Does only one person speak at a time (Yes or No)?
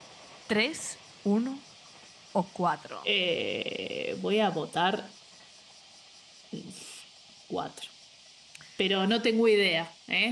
Yes